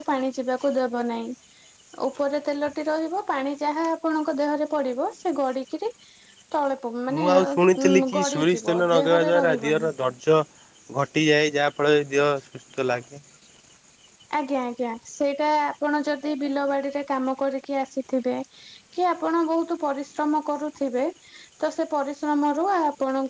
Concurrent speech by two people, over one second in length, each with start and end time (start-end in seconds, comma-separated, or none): 7.9-9.9